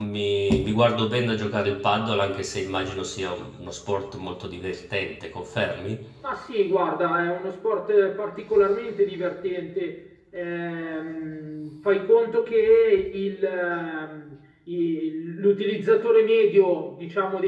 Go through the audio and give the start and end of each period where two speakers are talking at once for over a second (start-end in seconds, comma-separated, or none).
none